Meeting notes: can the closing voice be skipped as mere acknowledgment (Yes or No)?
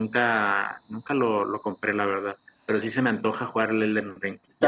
No